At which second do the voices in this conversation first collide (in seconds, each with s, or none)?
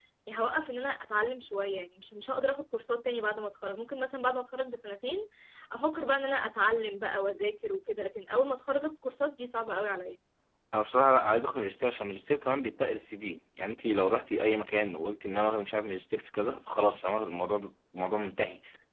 none